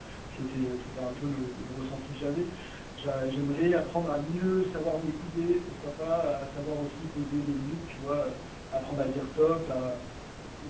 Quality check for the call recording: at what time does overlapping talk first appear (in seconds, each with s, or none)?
none